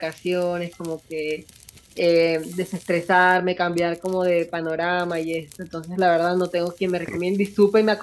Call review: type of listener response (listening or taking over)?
listening